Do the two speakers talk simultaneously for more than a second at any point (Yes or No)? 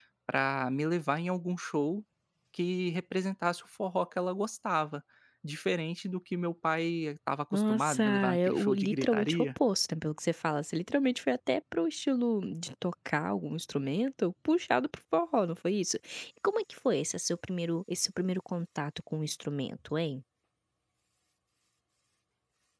Yes